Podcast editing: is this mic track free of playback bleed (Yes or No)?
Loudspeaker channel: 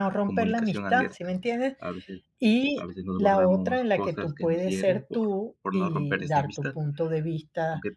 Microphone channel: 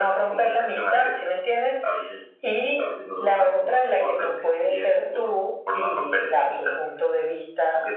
No